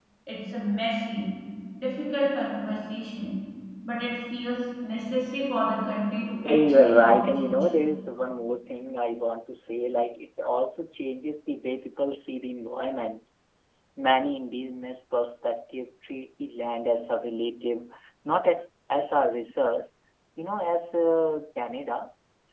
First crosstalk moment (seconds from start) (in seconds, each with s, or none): 6.4 s